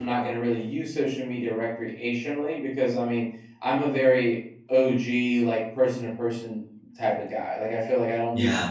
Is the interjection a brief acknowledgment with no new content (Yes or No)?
Yes